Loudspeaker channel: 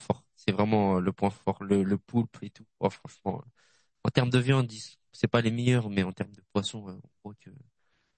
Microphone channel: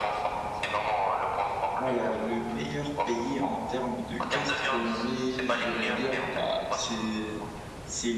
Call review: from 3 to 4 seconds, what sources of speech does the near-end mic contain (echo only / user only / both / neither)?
both